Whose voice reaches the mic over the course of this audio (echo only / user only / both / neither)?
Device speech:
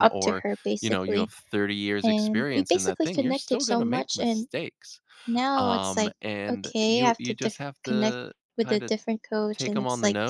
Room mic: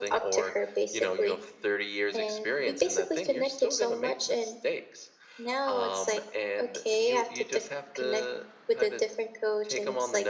echo only